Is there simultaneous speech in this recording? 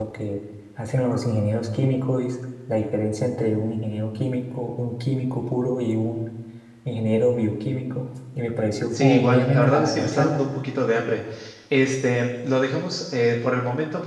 Yes, from 8.9 s

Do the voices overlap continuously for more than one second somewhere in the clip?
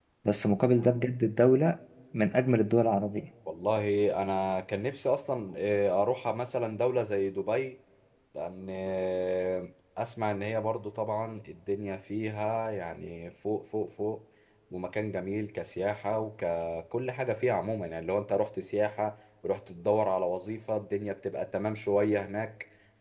No

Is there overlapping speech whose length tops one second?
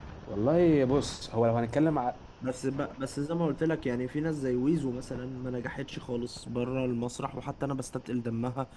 No

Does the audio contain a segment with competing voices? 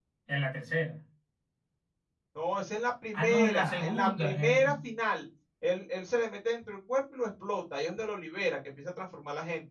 Yes, from 3.1 s

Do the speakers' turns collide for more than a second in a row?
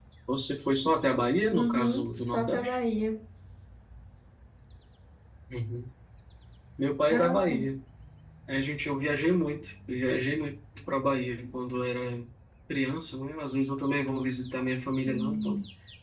Yes, from 1.6 s

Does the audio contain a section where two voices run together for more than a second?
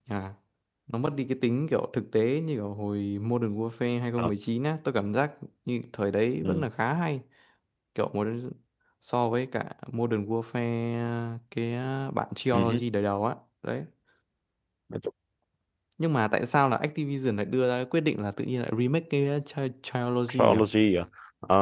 No

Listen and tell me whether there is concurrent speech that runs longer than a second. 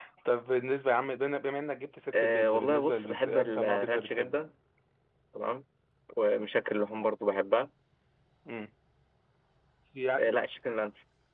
Yes, from 2.1 s

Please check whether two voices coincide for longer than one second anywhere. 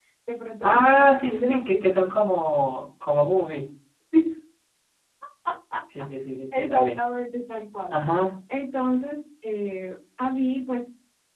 Yes, from 0.6 s

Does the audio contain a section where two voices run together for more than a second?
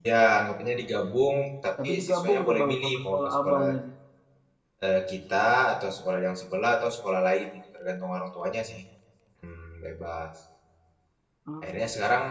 Yes, from 1.8 s

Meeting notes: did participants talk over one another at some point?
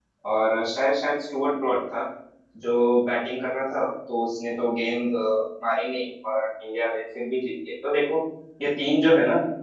No

